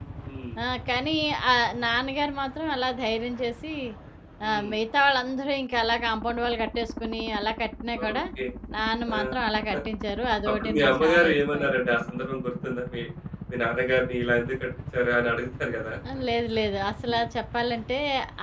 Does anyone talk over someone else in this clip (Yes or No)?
Yes